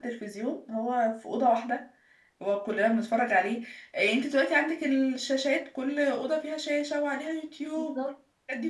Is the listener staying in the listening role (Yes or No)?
Yes